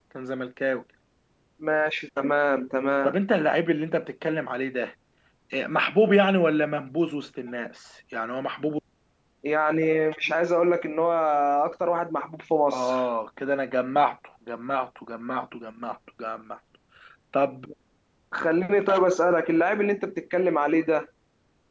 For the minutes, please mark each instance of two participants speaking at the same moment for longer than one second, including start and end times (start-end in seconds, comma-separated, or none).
none